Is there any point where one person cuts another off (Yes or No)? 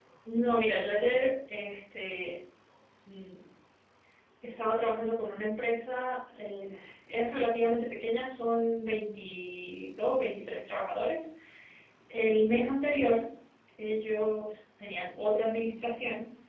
No